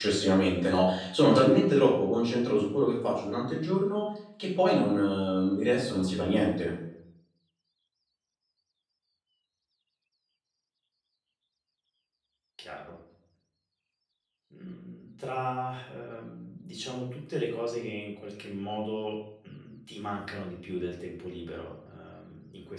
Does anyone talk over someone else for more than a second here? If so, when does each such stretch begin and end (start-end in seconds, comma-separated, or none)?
none